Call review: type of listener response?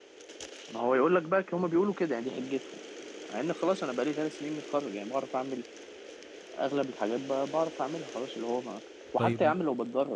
listening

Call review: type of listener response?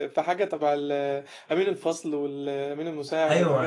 taking over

